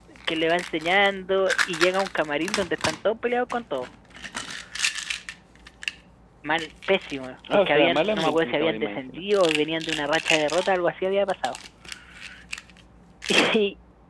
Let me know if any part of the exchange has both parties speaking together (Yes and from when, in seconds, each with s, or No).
Yes, from 7.4 s